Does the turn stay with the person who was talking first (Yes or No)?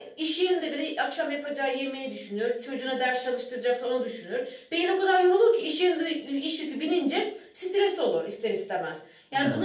Yes